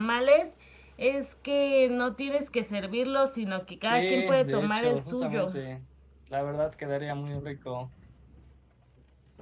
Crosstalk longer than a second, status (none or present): present